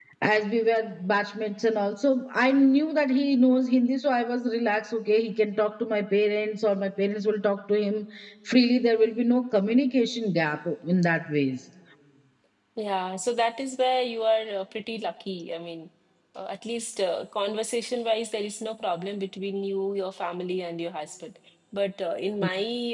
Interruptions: none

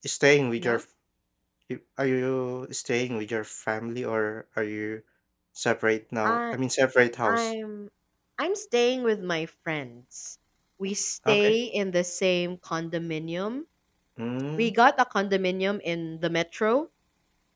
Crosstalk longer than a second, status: none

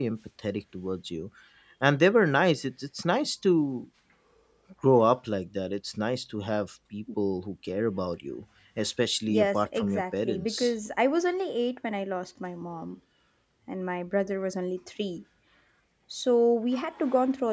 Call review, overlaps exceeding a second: present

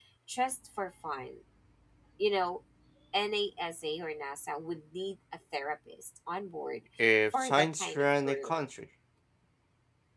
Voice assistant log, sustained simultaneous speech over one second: present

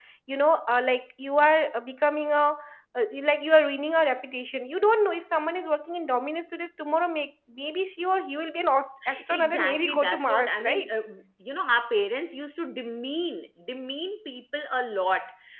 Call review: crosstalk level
present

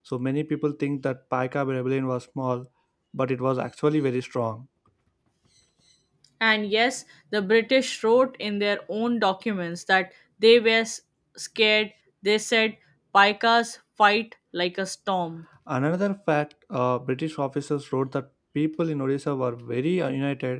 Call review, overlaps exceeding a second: none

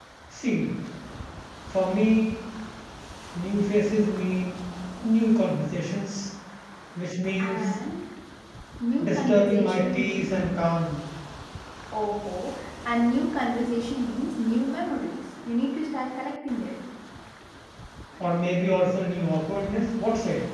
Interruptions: present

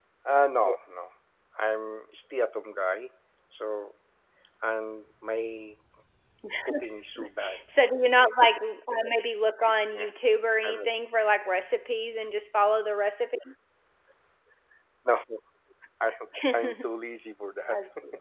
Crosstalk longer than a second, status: none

